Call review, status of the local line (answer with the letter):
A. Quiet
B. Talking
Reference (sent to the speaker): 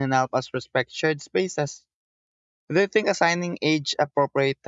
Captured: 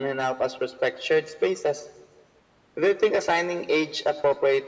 A